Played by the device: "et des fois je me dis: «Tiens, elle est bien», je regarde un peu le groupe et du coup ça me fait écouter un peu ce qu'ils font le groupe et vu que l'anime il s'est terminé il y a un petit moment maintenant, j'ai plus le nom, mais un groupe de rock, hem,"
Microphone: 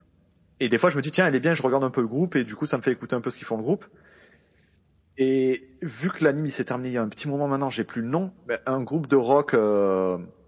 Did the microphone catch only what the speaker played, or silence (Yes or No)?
Yes